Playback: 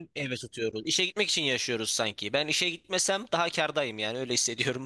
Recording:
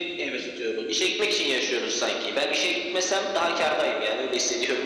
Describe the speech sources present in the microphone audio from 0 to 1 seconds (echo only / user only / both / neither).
echo only